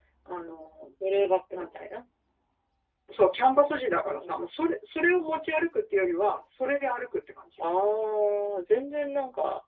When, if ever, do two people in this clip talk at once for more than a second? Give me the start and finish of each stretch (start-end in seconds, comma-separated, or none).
none